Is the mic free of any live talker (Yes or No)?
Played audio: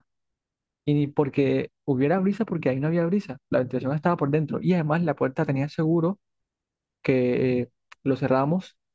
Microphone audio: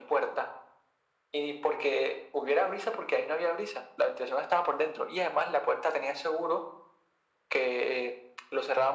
Yes